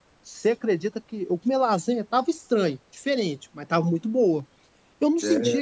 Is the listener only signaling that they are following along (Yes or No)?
Yes